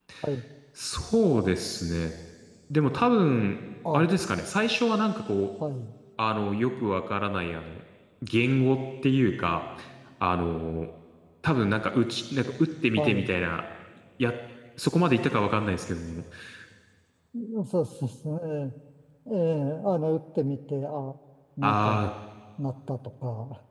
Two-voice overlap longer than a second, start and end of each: none

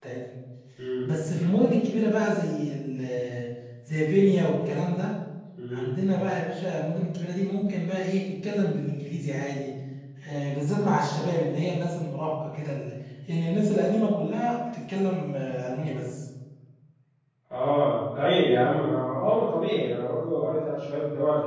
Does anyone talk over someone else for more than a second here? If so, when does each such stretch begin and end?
none

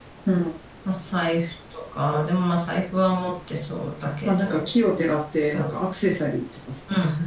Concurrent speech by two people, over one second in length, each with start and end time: none

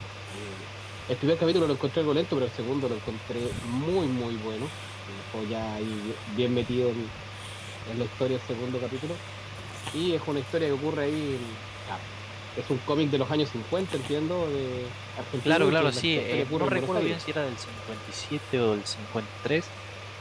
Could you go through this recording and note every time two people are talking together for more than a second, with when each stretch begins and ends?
15.4-17.2

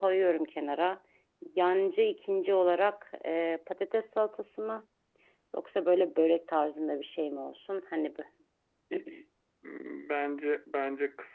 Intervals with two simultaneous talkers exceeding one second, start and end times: none

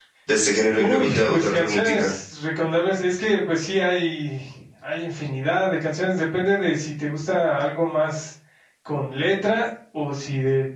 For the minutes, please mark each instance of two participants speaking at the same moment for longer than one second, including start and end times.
0.8-2.1

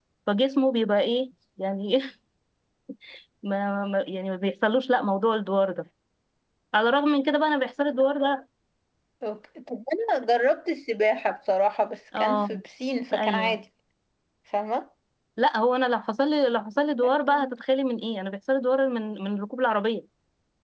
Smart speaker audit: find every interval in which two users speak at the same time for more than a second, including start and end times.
none

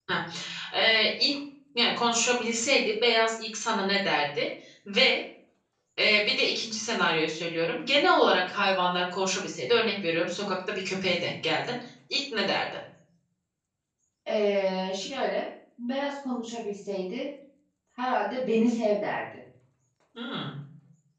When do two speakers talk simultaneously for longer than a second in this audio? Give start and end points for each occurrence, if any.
none

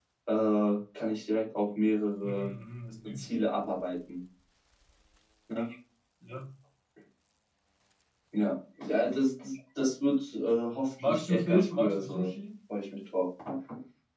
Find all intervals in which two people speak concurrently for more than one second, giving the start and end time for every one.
11.0-12.3

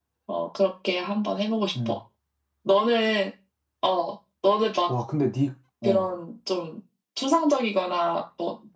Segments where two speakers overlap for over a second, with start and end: none

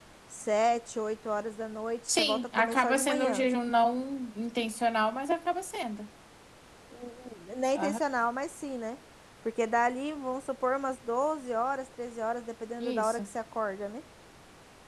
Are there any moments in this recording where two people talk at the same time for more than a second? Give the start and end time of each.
2.1-3.5

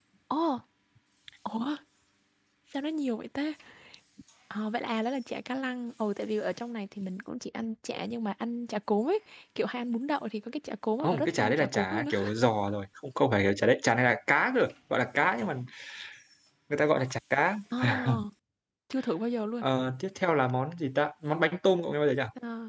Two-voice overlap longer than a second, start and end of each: 11.0-12.3

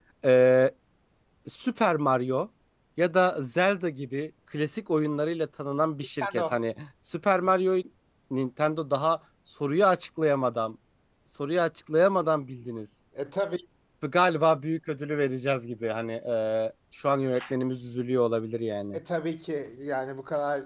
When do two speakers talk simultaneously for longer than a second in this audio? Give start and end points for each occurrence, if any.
none

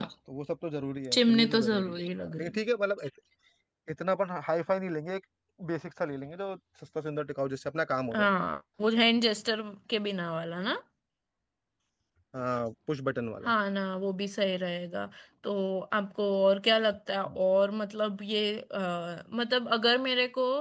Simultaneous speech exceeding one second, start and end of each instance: 1.1-2.6

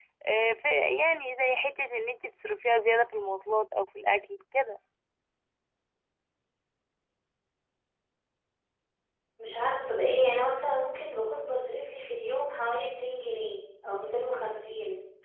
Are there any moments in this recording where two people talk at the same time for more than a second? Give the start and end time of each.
none

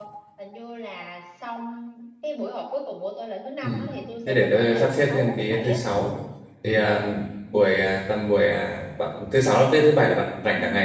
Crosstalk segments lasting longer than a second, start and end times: 4.3-5.8

